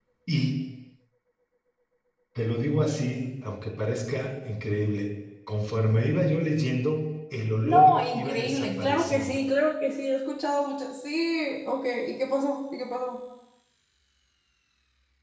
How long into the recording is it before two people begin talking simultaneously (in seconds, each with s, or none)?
7.6 s